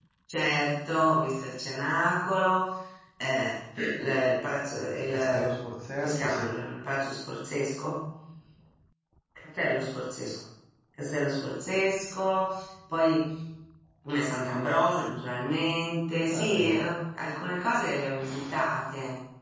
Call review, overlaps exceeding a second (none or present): none